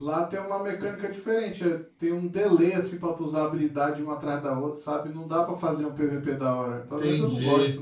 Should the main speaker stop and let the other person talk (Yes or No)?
Yes